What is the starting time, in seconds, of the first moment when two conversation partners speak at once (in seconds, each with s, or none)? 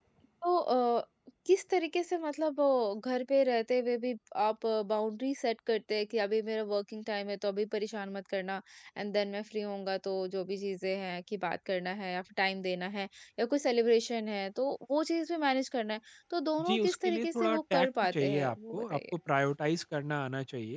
16.6 s